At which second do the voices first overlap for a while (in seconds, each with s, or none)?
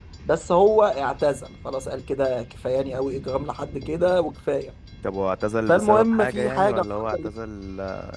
5.7 s